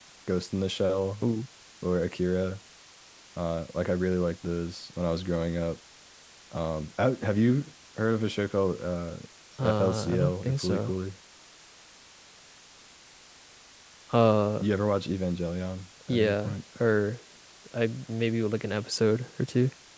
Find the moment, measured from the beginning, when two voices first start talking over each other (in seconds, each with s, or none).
9.6 s